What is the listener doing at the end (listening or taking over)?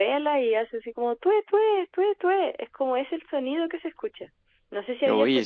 listening